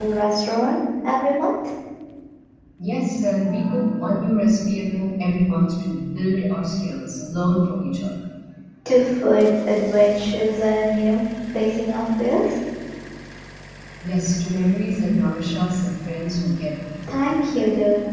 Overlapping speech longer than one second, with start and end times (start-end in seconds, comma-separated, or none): none